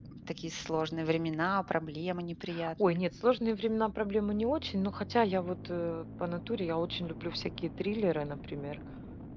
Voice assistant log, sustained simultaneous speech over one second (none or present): none